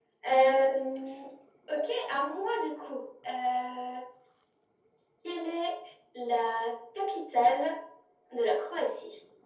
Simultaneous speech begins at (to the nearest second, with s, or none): none